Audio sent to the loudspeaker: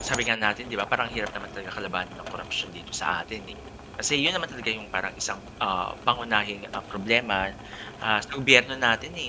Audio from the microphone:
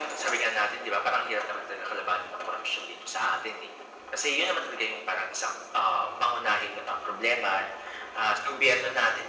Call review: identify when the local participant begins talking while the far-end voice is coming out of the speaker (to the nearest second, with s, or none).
none